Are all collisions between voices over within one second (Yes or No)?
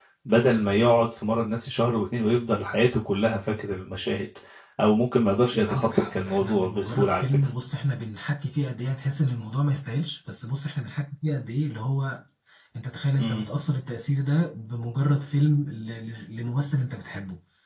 No